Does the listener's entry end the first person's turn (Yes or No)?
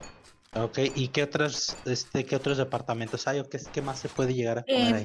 Yes